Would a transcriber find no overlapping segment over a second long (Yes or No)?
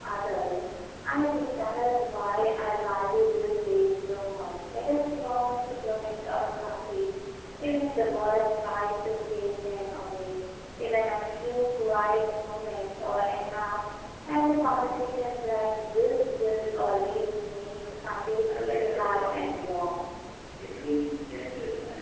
No